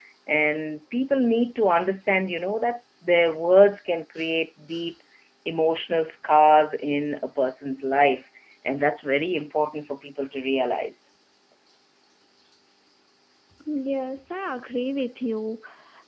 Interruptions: none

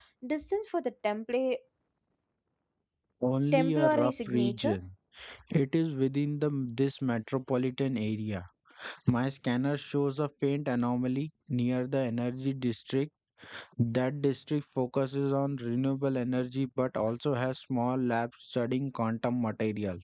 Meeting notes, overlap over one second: present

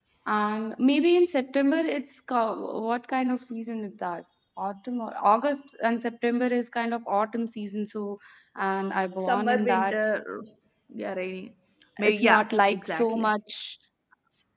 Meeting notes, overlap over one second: present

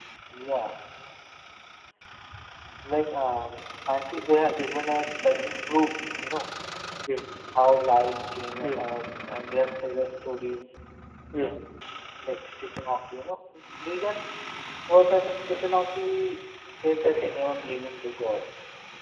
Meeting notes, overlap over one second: none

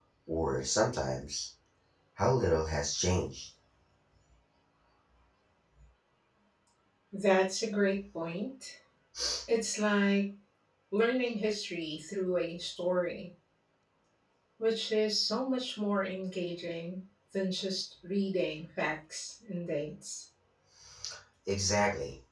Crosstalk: none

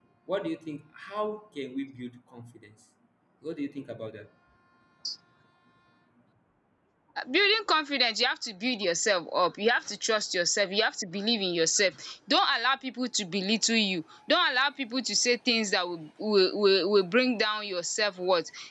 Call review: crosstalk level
none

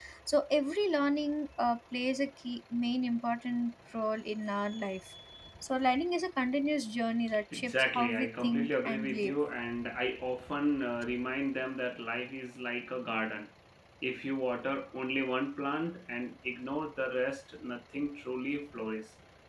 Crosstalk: present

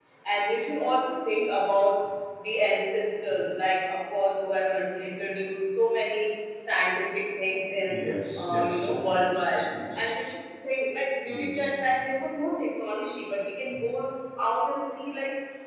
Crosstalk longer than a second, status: present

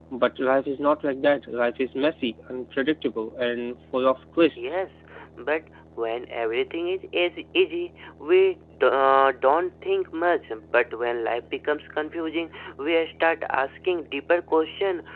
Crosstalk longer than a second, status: none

